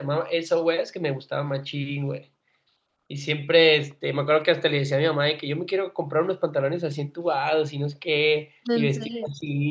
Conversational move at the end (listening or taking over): listening